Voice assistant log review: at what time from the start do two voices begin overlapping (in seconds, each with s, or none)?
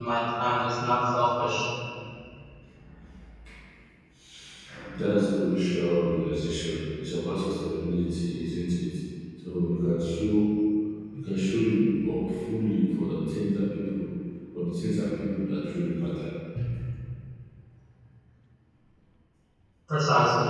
none